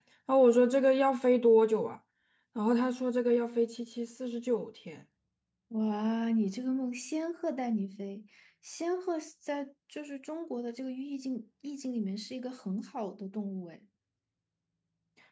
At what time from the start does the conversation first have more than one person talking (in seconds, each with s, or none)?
none